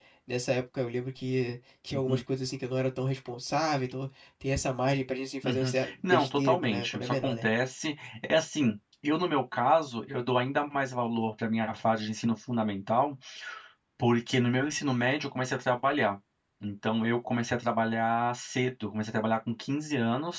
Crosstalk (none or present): present